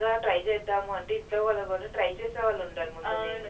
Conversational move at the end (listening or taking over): taking over